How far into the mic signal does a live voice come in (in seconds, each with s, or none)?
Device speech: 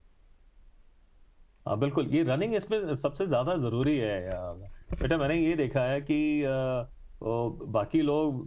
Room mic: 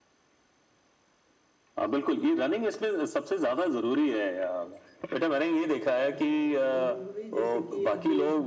6.1 s